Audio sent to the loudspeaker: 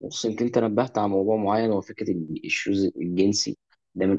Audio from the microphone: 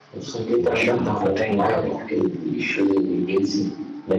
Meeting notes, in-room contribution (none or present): present